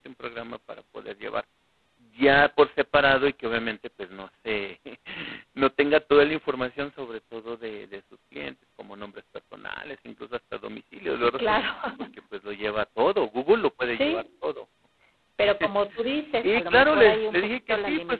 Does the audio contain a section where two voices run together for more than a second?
Yes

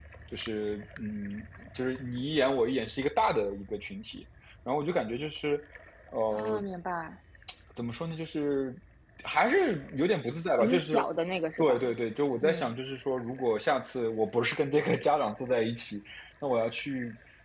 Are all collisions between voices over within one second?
Yes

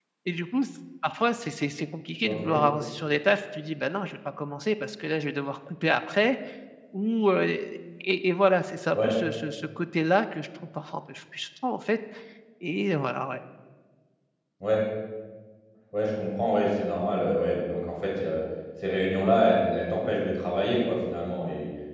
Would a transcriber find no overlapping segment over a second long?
Yes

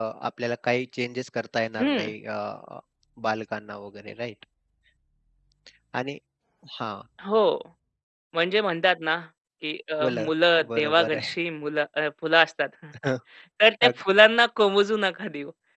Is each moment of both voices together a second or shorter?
No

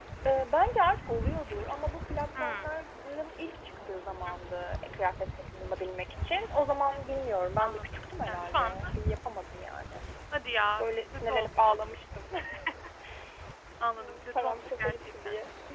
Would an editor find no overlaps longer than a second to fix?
No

